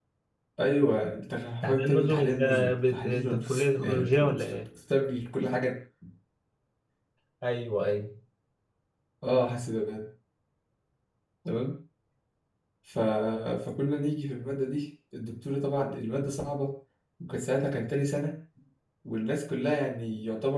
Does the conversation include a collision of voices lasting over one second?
Yes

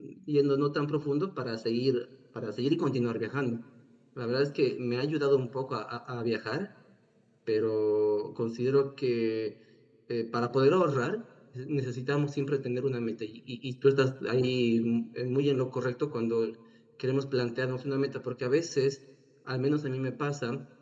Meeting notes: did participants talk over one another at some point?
No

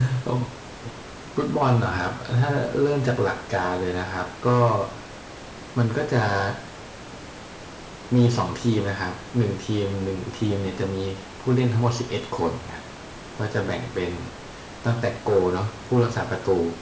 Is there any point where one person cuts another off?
No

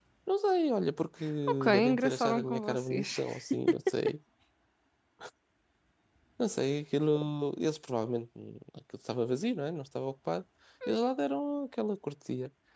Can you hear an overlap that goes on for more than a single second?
Yes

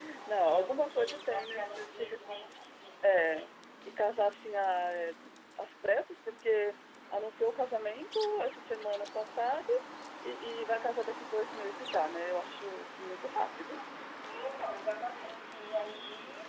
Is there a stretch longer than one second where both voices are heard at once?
Yes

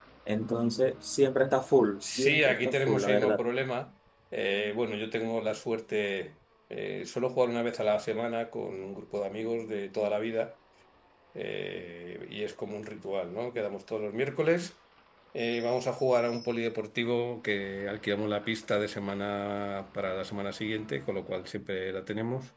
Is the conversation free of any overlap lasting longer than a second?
No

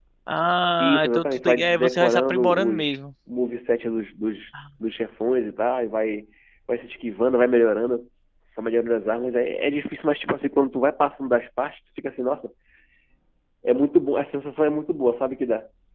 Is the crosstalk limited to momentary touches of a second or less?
No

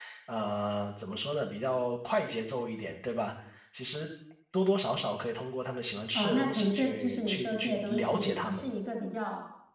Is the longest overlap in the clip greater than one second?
Yes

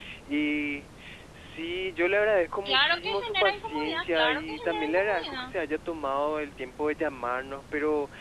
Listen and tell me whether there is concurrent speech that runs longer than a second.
Yes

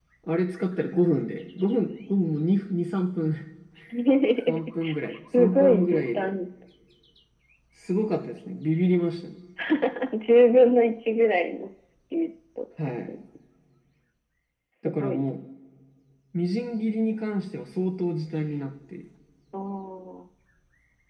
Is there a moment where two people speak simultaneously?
Yes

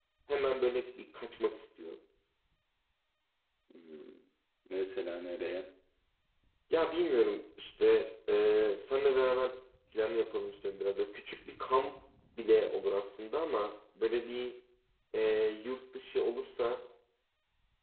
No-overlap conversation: Yes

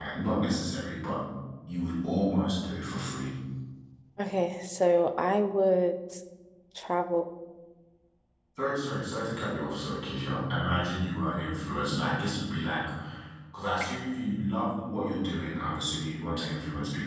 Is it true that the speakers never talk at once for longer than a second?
Yes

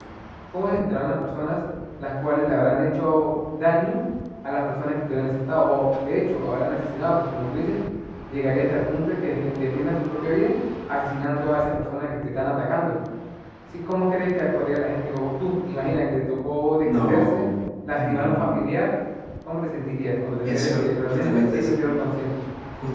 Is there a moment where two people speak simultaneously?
Yes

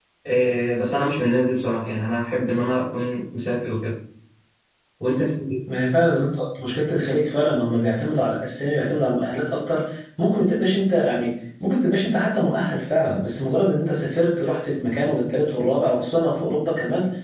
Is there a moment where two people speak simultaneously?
No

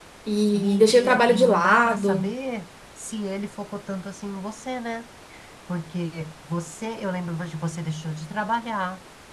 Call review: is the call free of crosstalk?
No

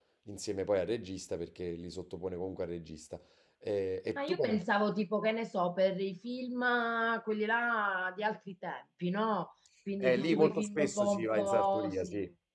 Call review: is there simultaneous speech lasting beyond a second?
Yes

